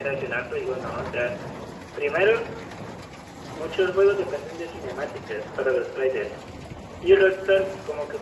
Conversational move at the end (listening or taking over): listening